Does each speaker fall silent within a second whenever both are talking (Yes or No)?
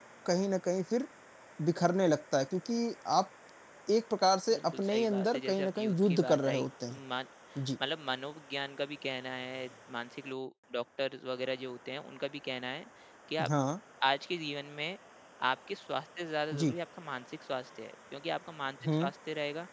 No